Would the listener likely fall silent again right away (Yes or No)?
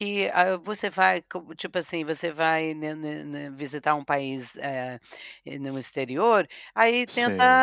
Yes